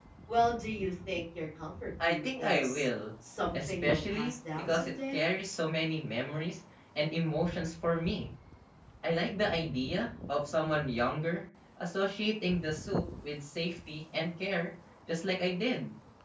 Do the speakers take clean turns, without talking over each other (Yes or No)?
No